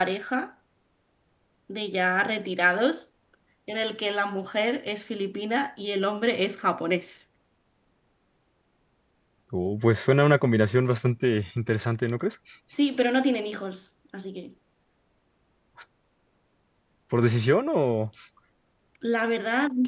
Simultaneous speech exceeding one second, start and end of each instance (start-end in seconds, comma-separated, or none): none